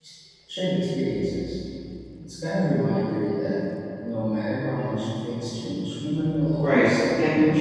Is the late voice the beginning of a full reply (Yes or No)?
Yes